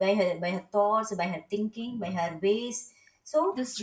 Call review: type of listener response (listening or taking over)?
listening